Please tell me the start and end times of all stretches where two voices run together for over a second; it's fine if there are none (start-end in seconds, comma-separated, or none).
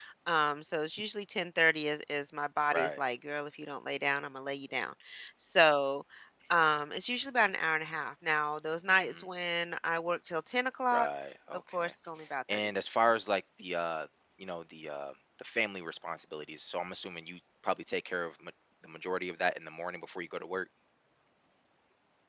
none